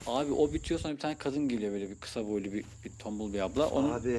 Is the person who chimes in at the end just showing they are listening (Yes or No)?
No